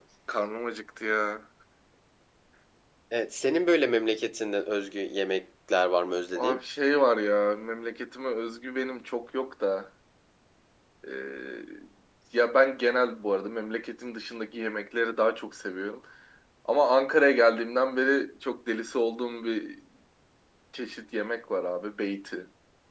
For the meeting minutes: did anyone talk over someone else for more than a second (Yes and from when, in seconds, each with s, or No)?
No